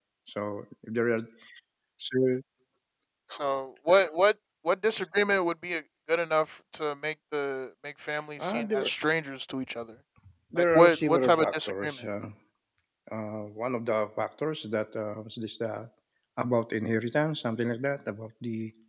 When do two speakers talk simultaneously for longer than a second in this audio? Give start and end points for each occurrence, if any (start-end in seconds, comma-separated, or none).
10.6-12.0